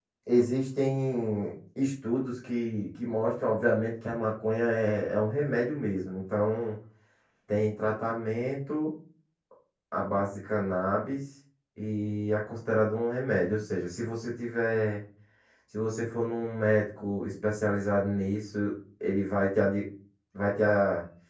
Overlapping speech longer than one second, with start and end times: none

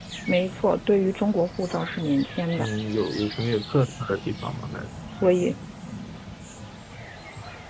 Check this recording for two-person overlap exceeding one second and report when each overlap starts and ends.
none

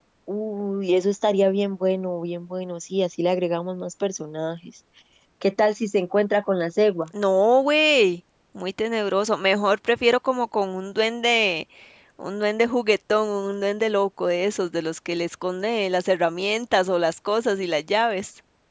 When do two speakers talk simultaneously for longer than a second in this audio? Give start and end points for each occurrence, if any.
none

